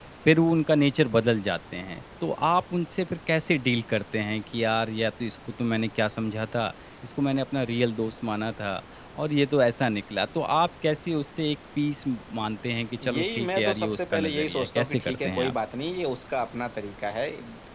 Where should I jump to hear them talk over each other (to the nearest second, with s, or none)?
13 s